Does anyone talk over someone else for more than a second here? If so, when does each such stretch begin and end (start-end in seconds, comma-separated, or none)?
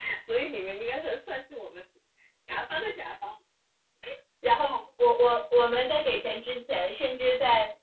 none